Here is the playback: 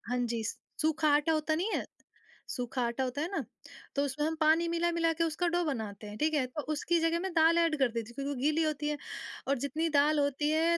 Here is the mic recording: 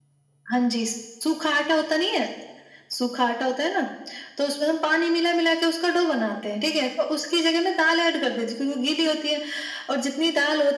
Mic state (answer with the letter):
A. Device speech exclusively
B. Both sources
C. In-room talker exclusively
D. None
A